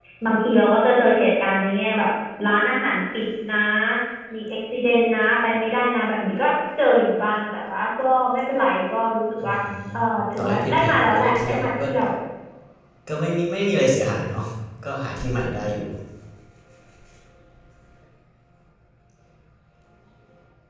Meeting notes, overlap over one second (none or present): present